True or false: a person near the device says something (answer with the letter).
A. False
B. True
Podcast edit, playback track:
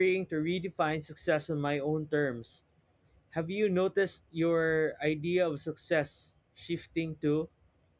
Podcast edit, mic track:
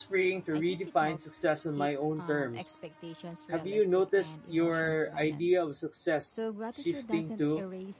B